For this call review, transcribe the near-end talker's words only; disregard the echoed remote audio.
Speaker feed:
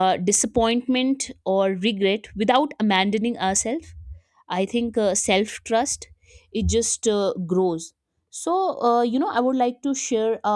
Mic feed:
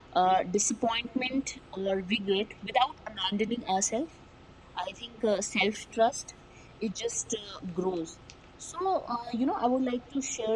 none

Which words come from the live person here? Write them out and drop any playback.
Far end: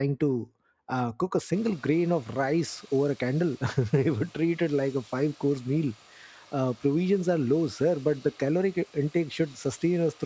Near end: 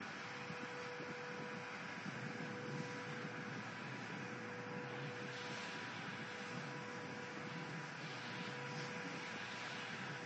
none

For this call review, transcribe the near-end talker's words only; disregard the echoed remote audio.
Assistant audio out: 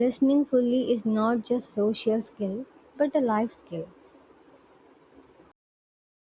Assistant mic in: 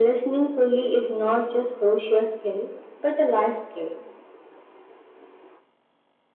none

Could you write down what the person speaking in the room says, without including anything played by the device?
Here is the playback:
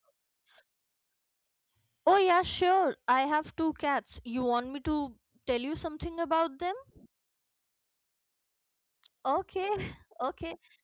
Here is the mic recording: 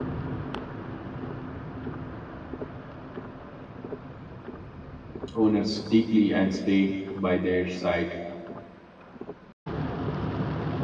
owners deeply and stay by their side

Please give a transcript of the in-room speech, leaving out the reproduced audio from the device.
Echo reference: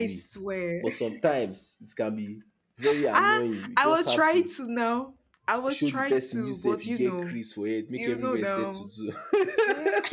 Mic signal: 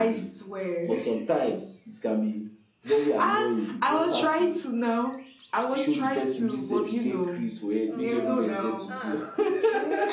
Oh, well, ah,

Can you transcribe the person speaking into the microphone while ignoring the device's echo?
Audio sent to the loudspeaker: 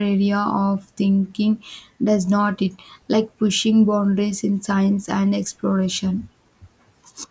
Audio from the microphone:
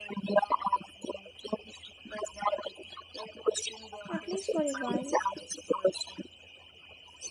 at least for a while.

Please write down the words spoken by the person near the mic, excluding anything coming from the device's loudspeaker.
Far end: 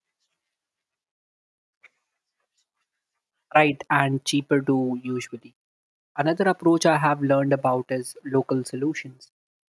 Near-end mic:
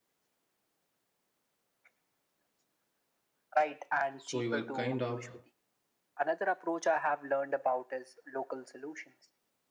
So you are kind of

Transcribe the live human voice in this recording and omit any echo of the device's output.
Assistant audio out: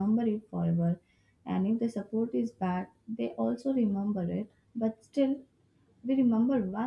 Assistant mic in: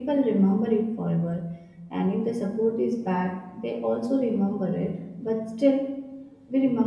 none

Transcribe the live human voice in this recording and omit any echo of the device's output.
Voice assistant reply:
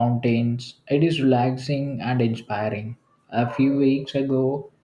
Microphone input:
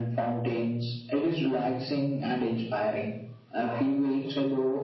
none

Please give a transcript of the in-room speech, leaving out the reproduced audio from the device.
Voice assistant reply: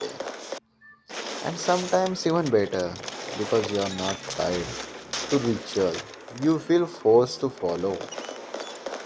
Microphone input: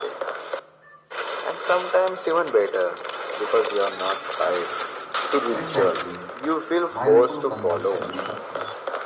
Exactly. Mindful consumption is the key.

